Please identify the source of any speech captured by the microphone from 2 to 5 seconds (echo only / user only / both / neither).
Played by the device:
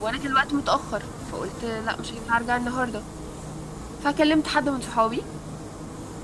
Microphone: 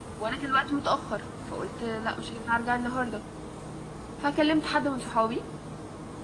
echo only